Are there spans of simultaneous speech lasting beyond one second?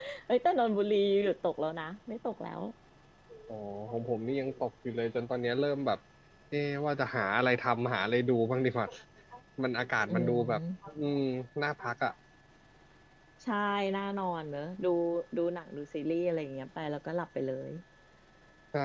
No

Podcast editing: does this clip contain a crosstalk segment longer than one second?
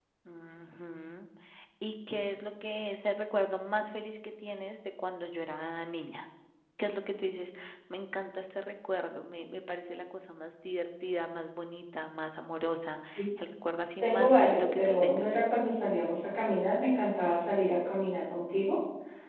Yes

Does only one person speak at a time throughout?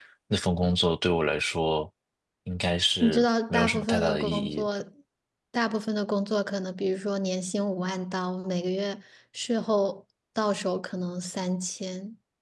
No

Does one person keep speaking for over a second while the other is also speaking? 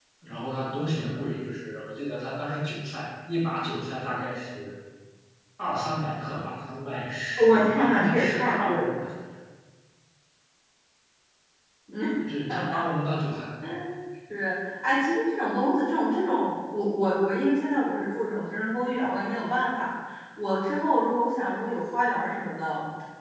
Yes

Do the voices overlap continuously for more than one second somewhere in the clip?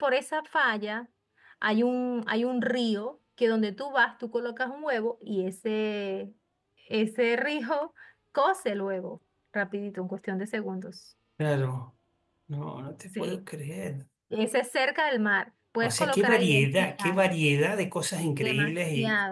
Yes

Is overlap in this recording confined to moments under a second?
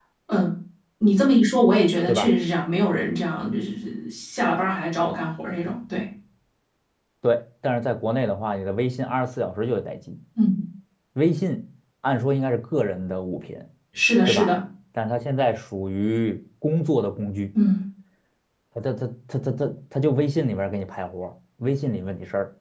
Yes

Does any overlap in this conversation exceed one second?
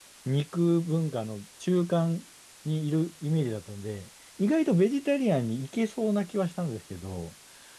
No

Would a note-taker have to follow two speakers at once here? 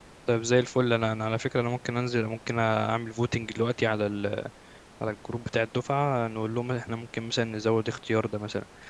No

